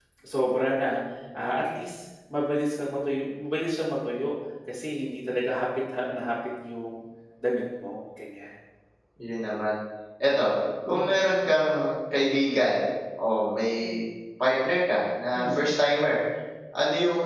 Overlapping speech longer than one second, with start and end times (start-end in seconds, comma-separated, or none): none